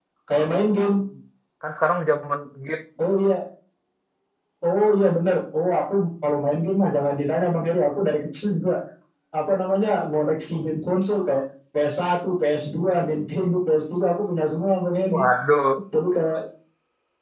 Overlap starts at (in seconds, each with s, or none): none